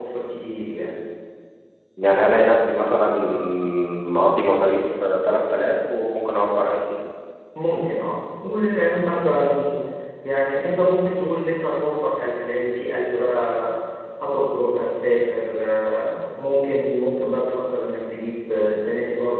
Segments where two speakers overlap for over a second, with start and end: none

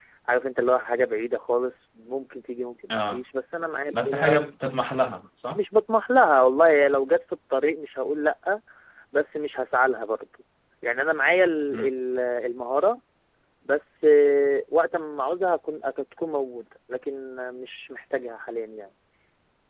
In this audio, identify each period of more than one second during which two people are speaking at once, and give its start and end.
none

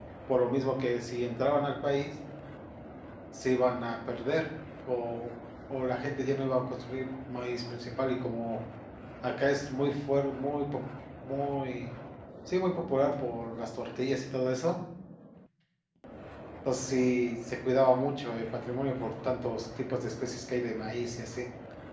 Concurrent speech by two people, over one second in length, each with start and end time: none

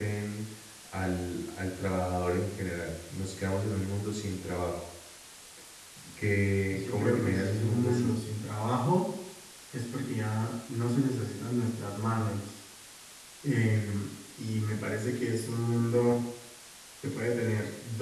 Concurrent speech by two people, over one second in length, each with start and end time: 6.7-8.1

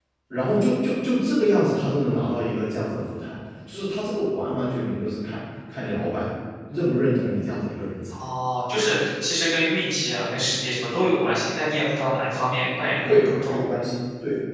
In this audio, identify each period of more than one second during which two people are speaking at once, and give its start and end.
none

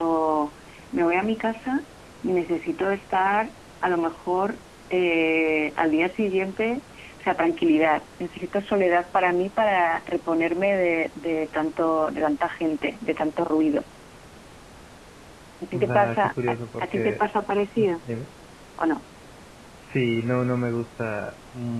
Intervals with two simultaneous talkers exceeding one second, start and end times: 15.7-17.2

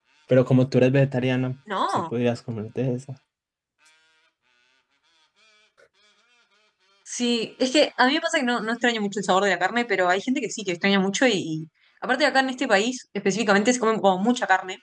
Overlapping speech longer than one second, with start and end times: none

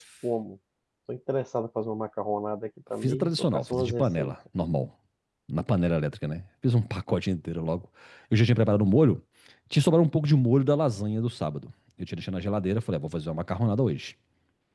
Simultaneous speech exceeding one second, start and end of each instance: 3.0-4.3

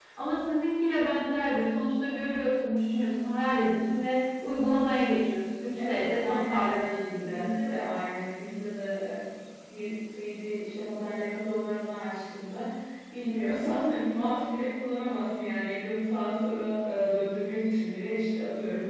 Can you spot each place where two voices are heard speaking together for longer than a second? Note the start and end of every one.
5.8-7.5

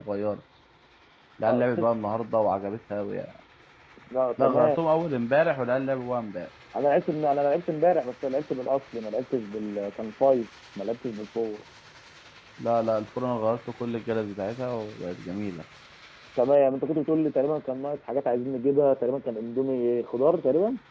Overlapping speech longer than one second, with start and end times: none

